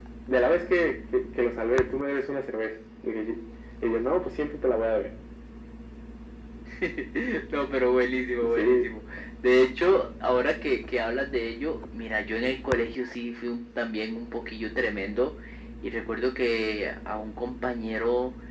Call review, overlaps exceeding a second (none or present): none